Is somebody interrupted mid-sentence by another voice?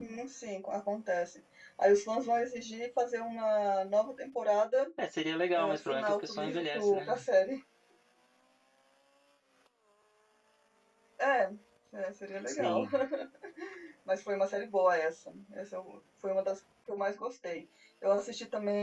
Yes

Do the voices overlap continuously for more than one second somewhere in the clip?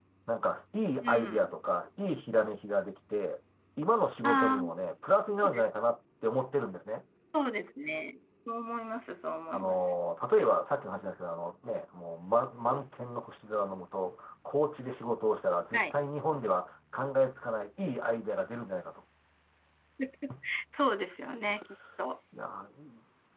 No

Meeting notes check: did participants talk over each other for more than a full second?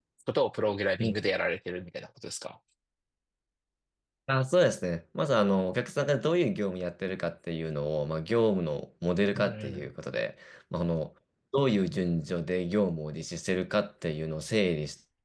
No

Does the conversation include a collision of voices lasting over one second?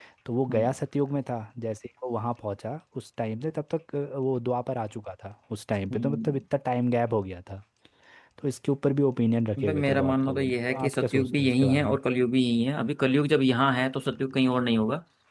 Yes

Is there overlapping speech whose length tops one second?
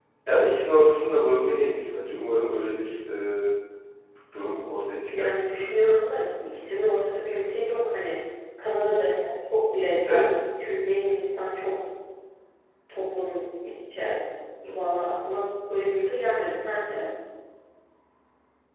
No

